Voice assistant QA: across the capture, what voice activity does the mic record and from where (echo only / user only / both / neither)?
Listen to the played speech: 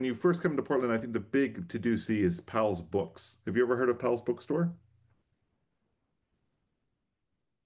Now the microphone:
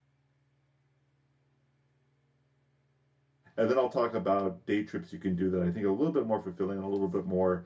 user only